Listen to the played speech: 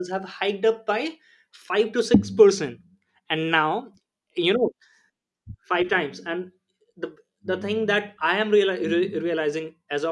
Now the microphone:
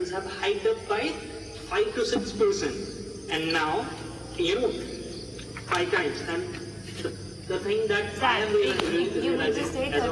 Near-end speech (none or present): present